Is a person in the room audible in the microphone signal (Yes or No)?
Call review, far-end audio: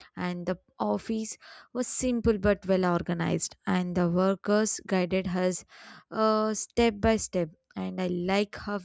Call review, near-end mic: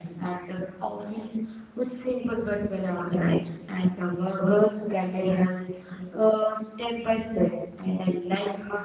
No